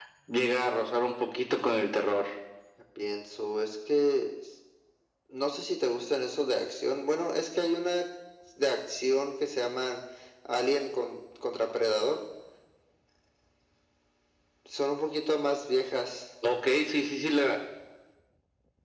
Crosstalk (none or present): none